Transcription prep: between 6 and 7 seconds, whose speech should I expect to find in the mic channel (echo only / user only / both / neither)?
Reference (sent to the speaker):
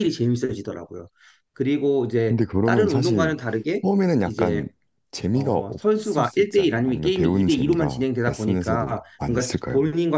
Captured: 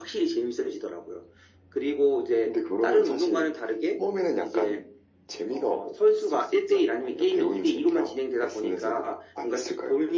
echo only